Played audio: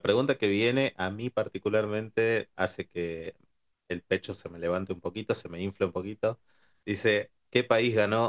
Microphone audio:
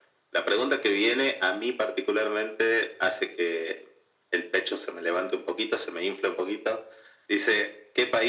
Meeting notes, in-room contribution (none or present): none